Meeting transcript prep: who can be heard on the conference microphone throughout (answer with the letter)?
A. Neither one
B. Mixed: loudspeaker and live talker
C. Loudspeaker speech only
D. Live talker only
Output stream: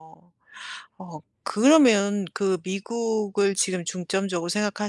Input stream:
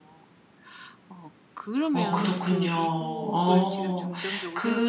B